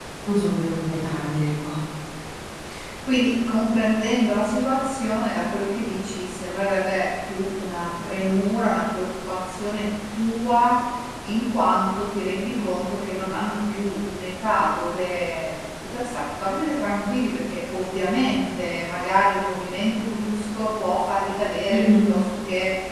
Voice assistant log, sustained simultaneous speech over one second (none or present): none